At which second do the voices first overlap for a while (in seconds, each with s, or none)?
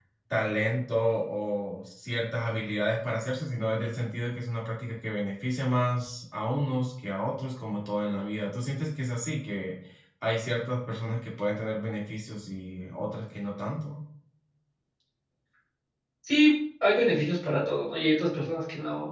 none